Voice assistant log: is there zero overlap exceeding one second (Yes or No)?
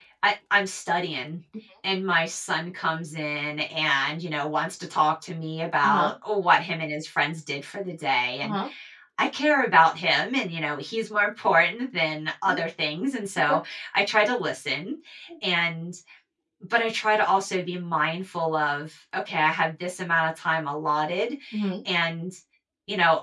Yes